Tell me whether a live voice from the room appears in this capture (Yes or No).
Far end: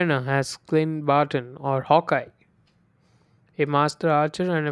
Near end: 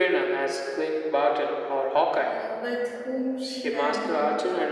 Yes